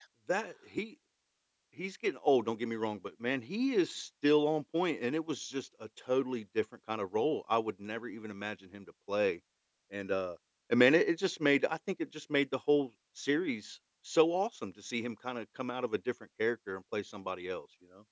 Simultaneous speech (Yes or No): No